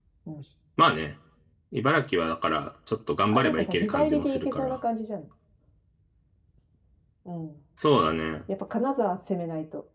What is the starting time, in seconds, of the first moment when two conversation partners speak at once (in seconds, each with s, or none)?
3.3 s